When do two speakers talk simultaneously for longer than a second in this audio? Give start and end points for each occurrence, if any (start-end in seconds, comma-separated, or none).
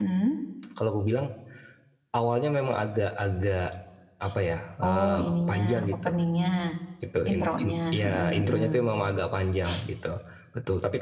4.8-6.1, 7.3-8.7